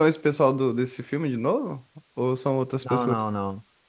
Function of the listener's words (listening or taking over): taking over